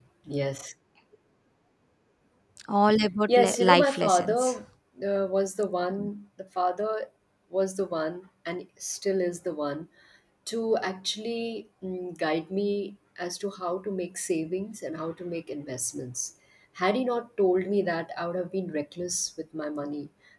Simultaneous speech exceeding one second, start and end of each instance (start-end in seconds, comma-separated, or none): 3.3-4.5